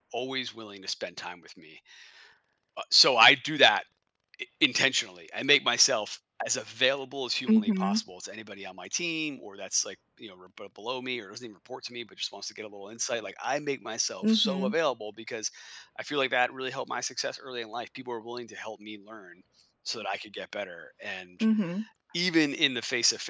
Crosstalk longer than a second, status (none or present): none